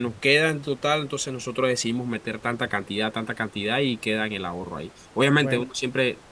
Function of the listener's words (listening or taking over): listening